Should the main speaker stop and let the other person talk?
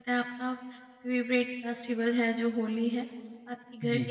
No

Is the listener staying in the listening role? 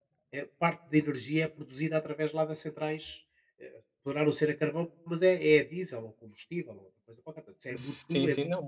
No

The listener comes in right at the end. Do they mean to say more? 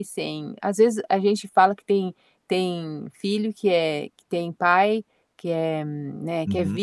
No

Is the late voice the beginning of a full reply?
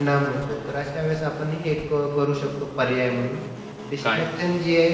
No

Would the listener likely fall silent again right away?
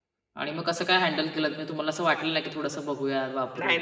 No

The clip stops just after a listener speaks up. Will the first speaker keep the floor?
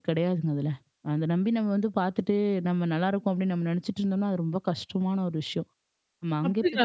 No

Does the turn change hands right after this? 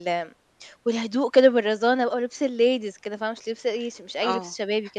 Yes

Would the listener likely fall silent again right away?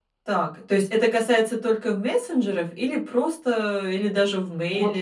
No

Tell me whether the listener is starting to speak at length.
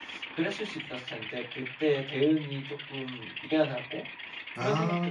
No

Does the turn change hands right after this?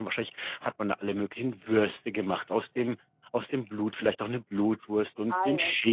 No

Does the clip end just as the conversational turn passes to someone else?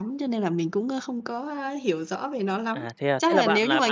Yes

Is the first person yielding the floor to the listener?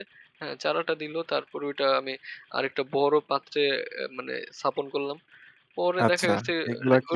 Yes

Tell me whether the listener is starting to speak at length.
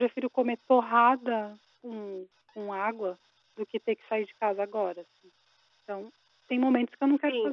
Yes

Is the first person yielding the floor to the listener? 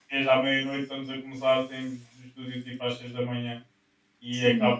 No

